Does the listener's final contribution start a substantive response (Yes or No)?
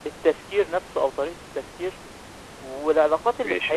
No